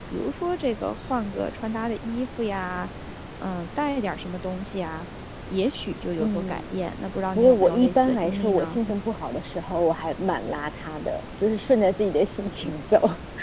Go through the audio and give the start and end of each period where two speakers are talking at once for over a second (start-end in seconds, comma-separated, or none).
7.3-8.8